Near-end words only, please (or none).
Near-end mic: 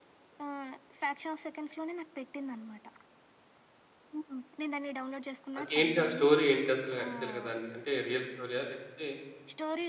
అదేంటి? ఆ స్టోరీ ఏంటసల యాక్చల్‌గా దాన్ని? అంటే రియల్ స్టోరీయా? లేపోతే